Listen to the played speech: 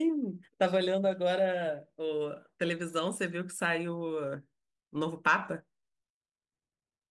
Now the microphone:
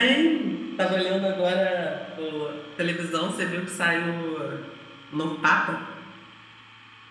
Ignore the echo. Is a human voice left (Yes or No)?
No